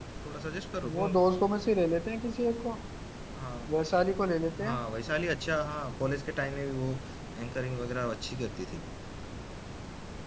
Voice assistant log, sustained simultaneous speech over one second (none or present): none